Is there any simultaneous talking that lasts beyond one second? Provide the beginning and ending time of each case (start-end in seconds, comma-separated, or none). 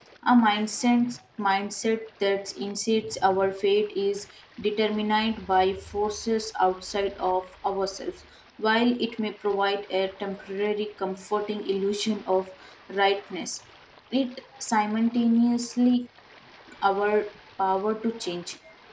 none